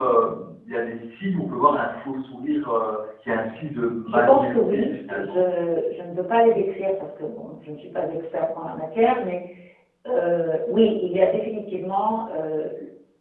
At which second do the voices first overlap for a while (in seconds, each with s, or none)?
4.0 s